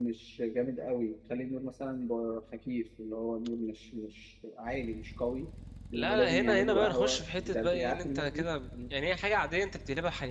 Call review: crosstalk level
present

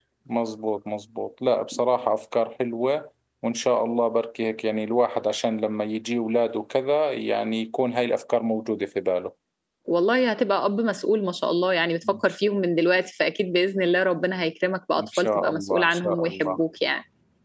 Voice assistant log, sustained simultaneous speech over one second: present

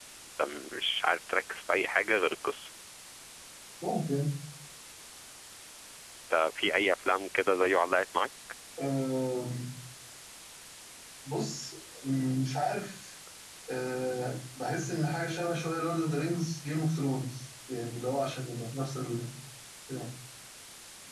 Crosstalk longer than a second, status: none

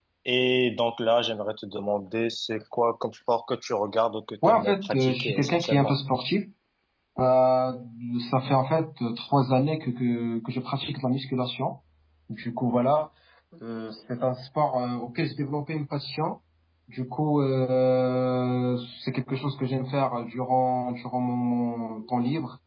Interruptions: present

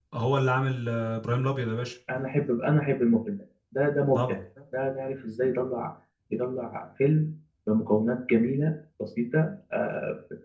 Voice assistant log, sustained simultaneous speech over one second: none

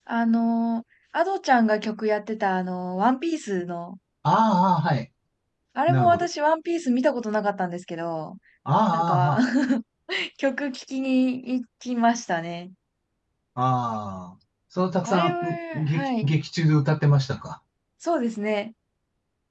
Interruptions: present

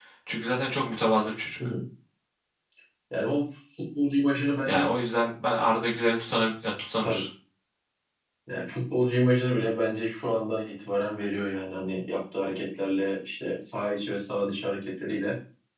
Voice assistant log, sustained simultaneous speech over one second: none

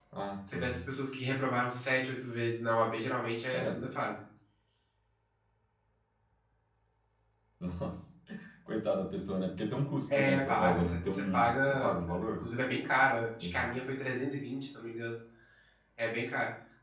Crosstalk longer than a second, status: present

